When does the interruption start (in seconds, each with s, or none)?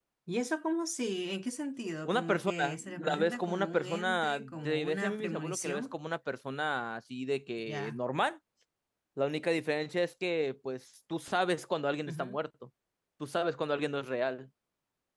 2.0 s